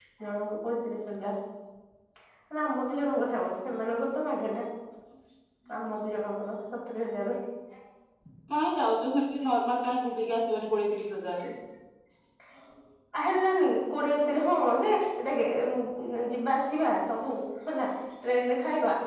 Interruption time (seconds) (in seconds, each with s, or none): none